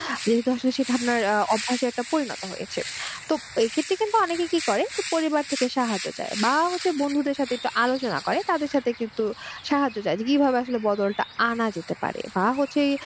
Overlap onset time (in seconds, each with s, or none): none